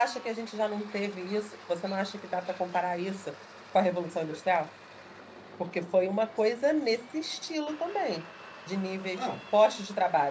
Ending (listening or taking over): listening